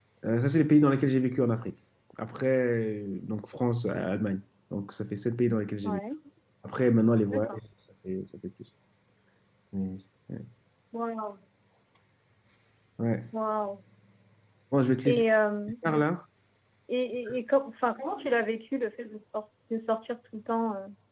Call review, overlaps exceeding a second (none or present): none